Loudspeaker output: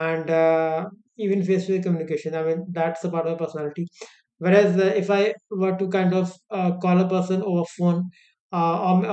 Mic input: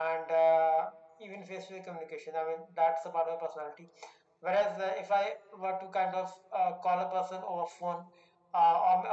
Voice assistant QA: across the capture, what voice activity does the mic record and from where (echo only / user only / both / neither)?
echo only